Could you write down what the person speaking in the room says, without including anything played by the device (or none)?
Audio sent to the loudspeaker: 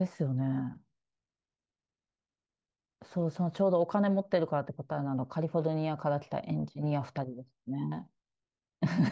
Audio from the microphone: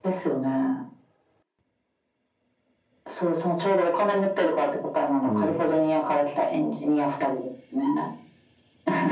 うん。